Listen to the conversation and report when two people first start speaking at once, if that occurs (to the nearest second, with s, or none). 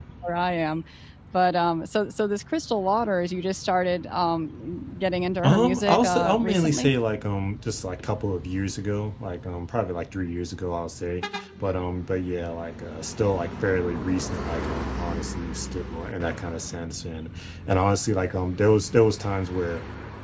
5 s